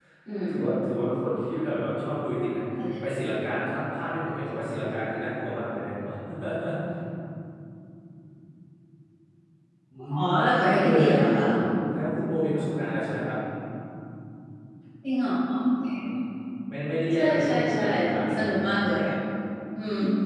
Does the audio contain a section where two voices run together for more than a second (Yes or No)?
Yes